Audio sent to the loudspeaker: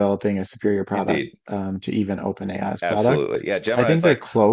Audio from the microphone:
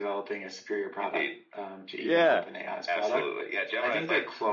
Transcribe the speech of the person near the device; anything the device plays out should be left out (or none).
yeah.